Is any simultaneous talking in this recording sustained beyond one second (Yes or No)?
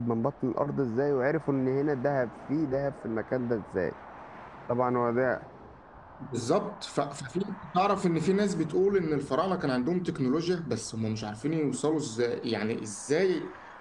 No